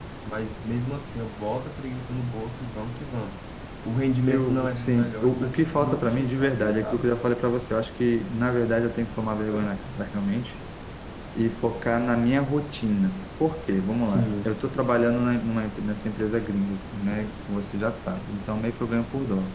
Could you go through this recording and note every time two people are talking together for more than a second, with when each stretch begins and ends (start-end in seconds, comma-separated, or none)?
4.3-7.1